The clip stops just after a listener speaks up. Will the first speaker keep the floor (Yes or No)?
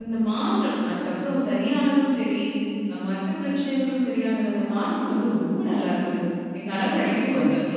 Yes